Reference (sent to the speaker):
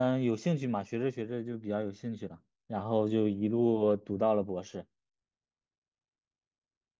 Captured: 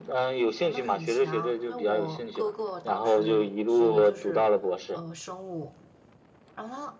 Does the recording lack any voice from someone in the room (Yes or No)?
No